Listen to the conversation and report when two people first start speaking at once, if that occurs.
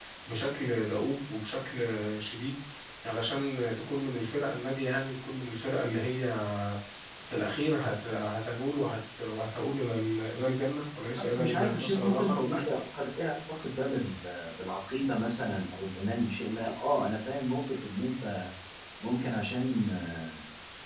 11.2 s

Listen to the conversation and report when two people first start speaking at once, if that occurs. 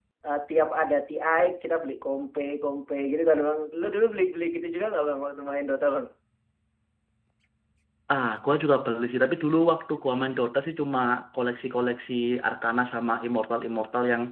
none

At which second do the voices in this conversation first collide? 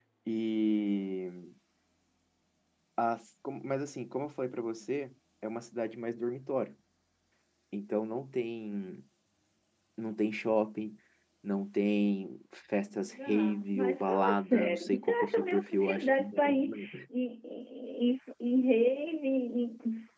13.1 s

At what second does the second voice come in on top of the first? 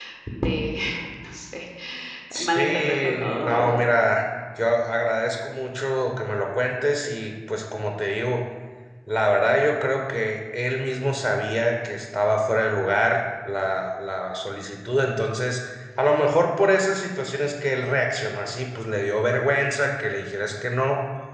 2.4 s

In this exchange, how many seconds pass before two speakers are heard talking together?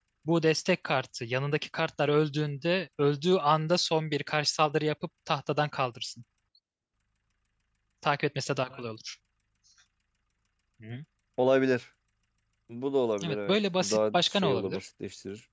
13.2 s

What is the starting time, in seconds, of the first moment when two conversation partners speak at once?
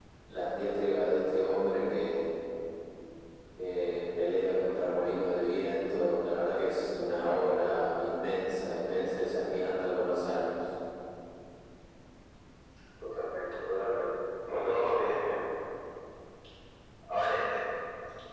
none

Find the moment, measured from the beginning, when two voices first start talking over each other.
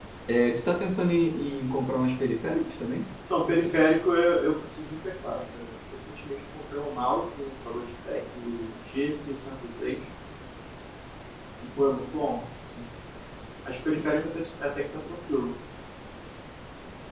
none

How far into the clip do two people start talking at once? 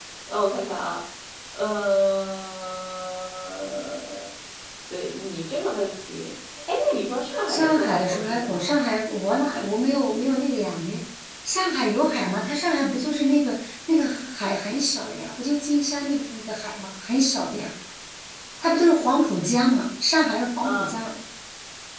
7.5 s

